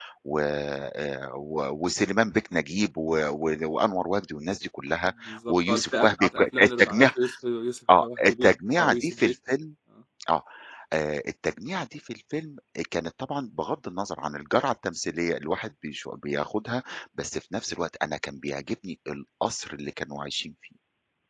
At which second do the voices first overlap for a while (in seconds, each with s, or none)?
5.0 s